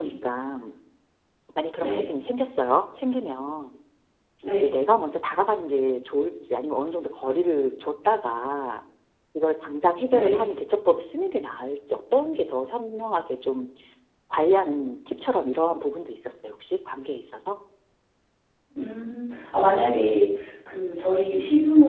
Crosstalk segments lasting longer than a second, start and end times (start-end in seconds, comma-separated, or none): none